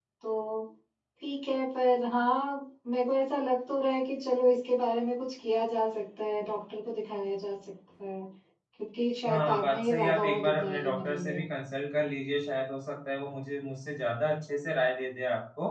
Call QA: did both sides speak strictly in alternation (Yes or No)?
No